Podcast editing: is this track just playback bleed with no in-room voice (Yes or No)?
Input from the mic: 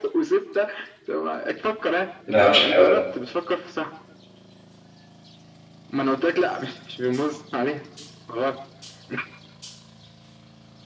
No